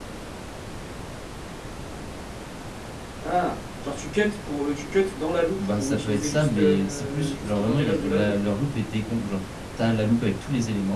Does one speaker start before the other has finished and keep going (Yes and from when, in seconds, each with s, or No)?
Yes, from 5.6 s